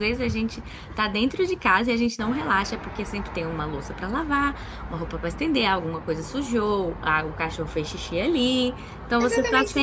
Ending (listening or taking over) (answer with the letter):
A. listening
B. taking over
B